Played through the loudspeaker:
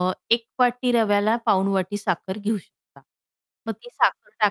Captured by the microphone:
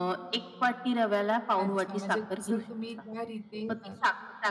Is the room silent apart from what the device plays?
No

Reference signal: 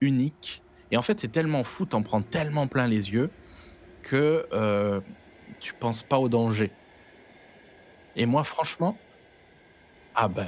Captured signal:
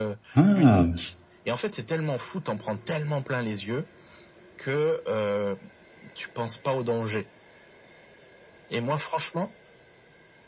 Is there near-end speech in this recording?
Yes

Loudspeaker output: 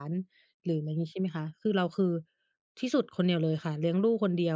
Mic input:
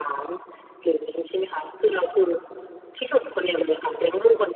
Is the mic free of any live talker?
Yes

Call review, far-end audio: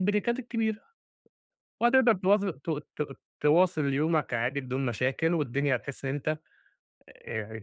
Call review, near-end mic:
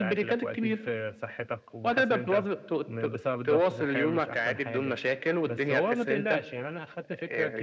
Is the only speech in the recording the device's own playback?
No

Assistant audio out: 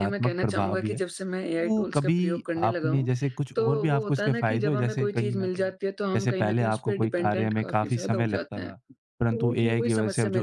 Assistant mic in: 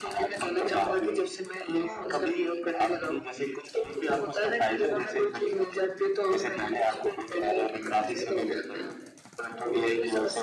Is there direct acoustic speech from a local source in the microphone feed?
No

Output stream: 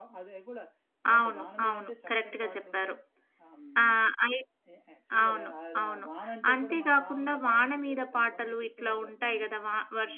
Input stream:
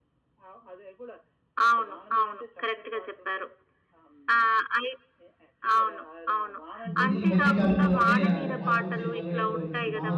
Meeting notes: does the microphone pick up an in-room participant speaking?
Yes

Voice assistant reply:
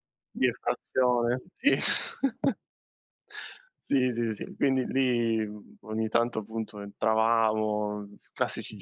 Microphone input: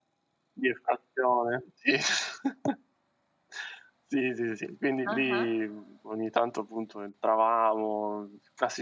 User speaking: Yes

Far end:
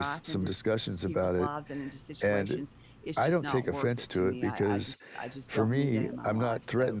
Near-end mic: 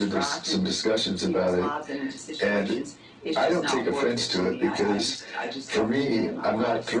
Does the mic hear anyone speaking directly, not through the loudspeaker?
No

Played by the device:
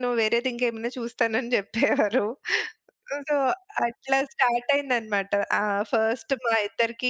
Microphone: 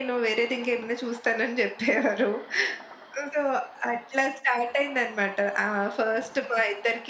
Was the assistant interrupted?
No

